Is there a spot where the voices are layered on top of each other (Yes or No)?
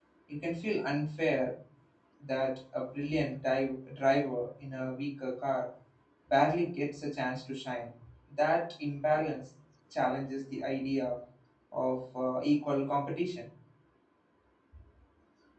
No